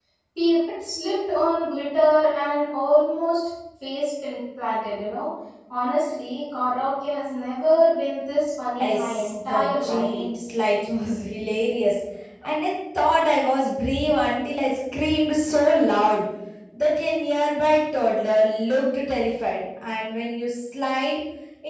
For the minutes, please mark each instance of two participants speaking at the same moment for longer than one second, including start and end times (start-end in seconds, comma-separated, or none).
8.8-10.2